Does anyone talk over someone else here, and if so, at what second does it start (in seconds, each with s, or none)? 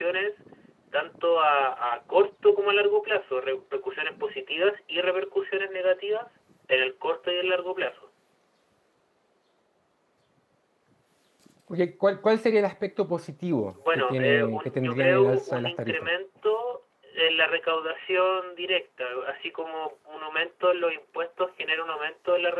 13.8 s